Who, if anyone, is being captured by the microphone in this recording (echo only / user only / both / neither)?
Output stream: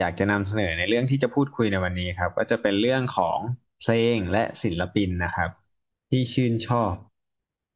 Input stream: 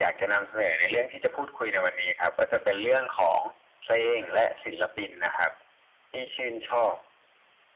echo only